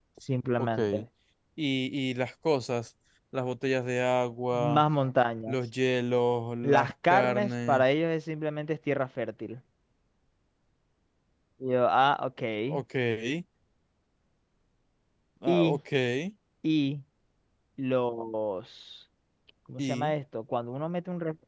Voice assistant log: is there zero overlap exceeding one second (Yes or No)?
No